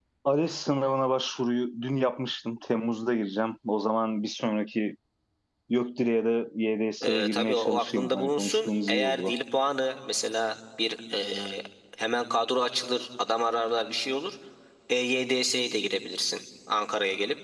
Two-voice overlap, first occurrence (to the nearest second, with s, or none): 7 s